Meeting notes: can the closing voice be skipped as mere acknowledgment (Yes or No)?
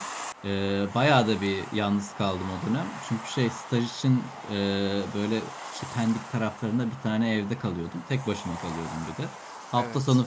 Yes